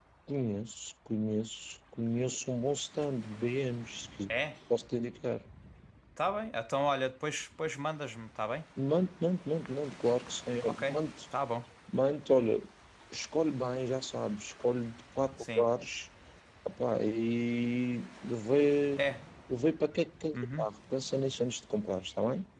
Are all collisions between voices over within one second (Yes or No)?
Yes